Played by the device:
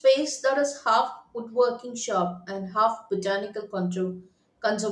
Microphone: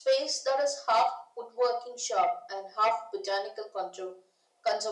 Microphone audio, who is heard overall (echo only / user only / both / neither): echo only